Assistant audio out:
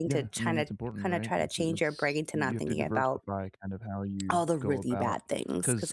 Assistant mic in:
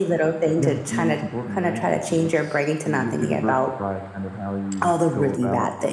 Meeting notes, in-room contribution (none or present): none